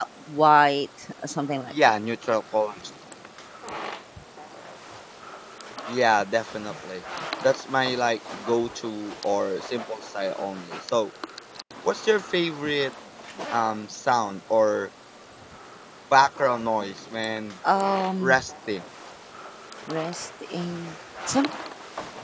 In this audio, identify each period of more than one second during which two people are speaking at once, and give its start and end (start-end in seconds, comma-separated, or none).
none